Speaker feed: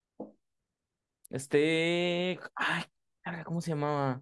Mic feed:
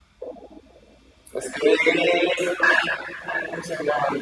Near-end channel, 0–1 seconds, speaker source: neither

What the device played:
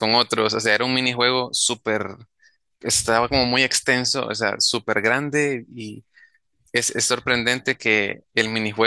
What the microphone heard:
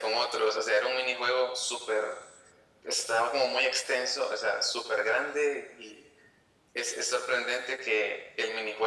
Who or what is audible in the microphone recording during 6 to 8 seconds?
echo only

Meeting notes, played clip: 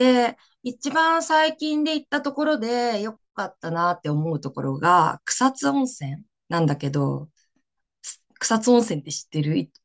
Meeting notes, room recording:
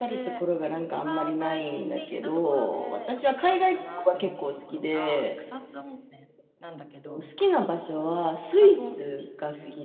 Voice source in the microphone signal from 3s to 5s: both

